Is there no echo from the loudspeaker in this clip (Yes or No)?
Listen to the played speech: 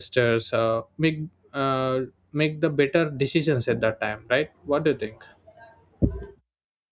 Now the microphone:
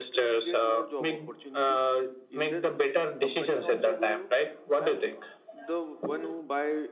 No